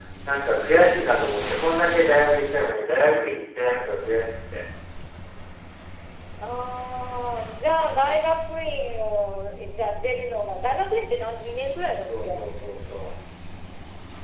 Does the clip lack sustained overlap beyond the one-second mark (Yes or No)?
Yes